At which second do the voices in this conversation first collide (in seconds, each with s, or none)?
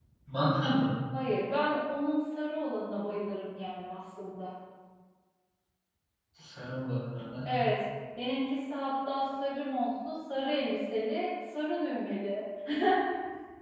none